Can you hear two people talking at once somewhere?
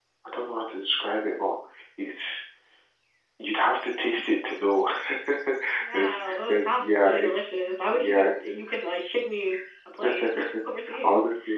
Yes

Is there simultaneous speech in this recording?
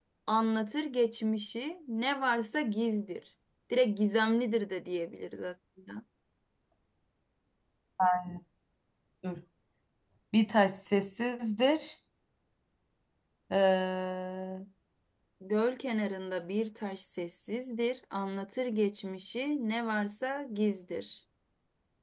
No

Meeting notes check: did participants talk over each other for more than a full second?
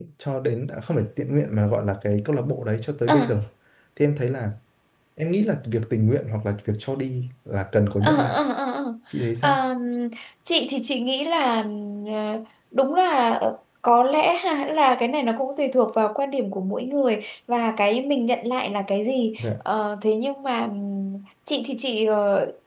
No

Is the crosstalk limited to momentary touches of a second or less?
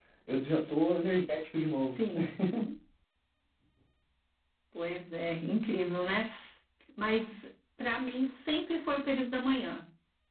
Yes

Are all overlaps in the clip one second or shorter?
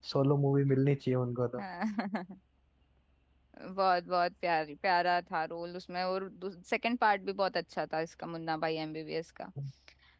Yes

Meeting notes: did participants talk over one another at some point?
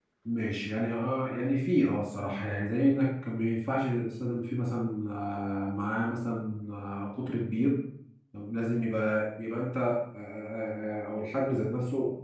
No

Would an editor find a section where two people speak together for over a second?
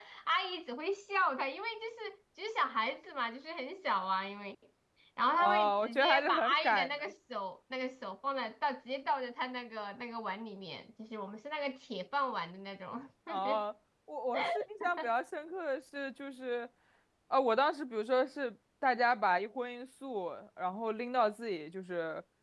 Yes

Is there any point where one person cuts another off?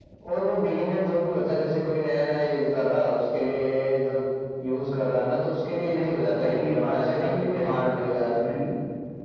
Yes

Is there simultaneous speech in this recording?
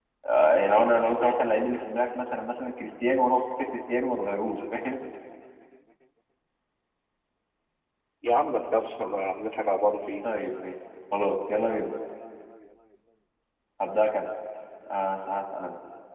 No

